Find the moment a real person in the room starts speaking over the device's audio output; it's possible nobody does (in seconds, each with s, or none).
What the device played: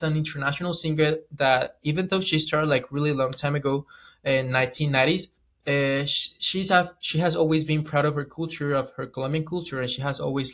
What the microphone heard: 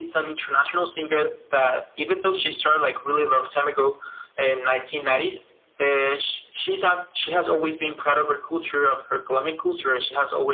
none